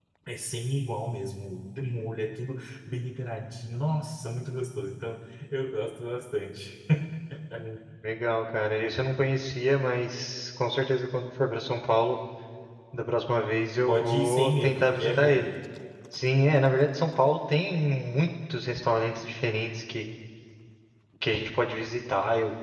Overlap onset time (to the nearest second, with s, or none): 14 s